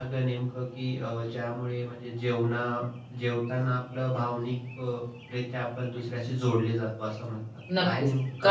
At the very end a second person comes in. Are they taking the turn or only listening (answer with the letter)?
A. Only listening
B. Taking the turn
B